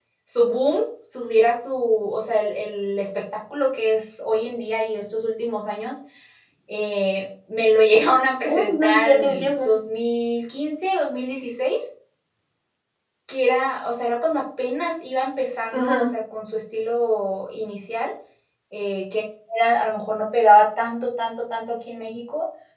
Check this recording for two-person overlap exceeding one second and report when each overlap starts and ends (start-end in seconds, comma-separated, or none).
8.5-9.7